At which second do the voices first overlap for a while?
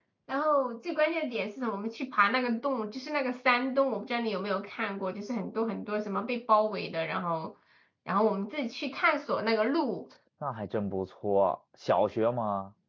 none

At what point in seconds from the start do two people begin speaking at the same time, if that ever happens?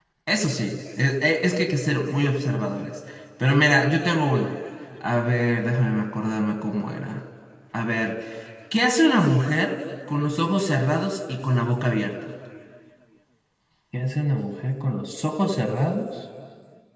none

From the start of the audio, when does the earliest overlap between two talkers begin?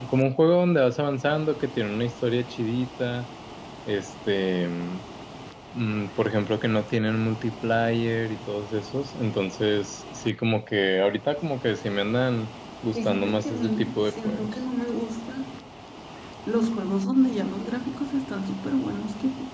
12.9 s

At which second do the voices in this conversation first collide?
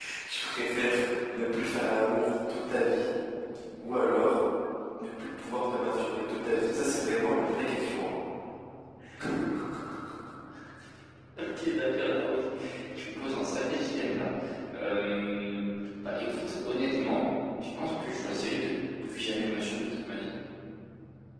none

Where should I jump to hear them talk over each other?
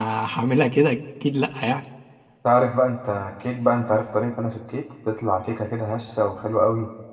none

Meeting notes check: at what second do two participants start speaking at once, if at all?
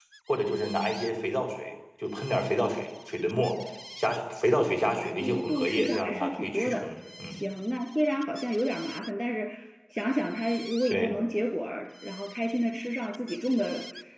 4.7 s

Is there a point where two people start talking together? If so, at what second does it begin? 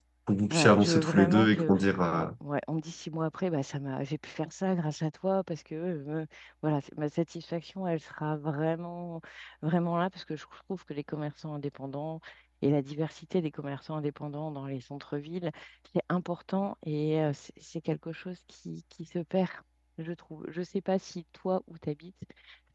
0.5 s

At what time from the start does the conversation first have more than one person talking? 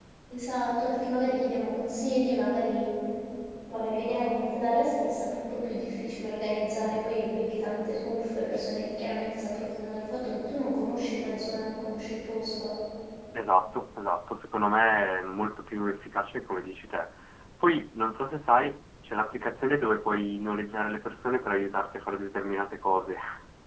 none

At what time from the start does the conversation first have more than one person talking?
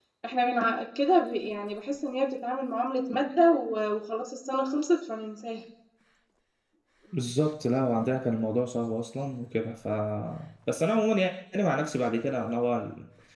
none

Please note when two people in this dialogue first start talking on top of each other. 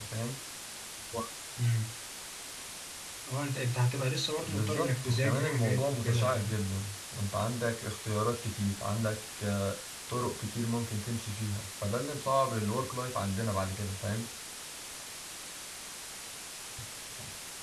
4.4 s

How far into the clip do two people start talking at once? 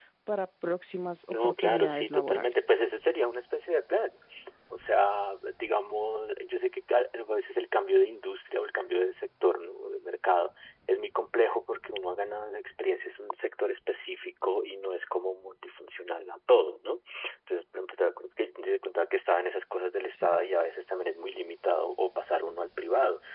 1.3 s

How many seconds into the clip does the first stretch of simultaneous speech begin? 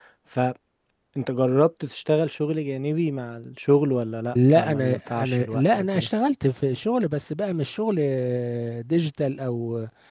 4.3 s

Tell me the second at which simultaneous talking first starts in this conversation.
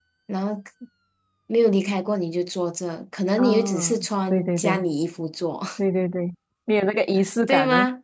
3.4 s

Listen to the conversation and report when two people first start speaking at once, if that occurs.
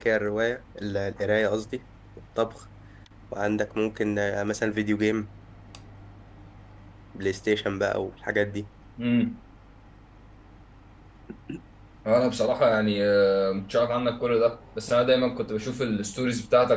none

